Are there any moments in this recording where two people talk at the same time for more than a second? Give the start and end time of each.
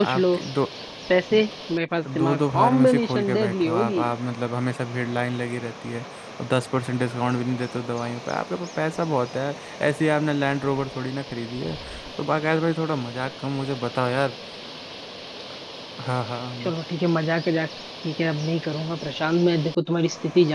2.1-4.0

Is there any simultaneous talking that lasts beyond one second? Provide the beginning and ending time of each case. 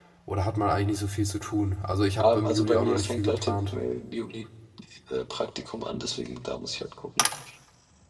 2.2-3.6

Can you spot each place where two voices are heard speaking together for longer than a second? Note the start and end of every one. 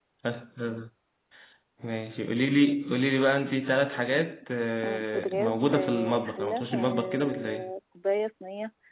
4.8-7.7

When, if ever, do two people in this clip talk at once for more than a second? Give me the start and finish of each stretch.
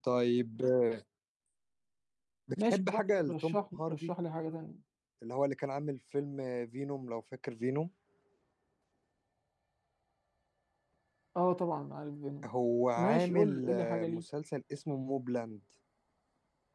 2.6-4.1, 13.0-14.2

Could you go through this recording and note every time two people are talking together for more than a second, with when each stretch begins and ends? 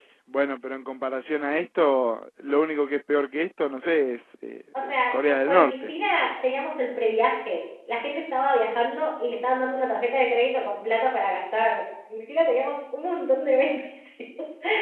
4.7-5.9

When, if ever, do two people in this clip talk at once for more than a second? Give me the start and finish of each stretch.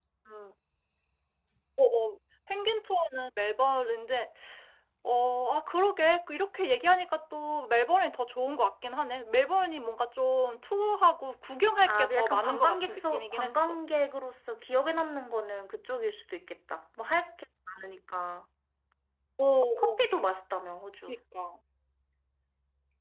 11.9-13.7

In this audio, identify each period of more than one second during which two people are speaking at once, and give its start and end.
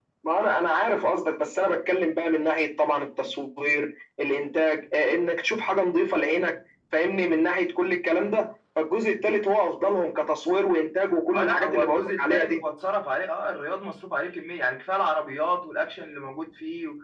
11.3-12.6

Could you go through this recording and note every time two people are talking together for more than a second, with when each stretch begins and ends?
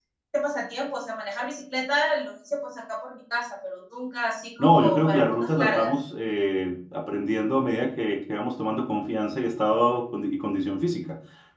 4.6-5.9

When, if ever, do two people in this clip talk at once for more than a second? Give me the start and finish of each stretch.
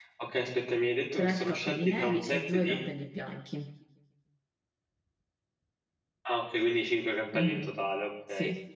1.2-2.8

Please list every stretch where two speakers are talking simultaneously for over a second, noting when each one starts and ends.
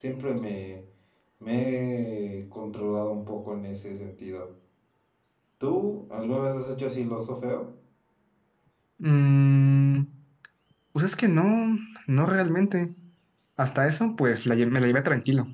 none

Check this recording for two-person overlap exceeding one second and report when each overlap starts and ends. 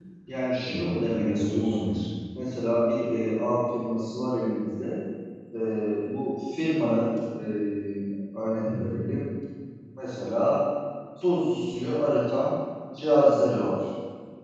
0.7-1.9

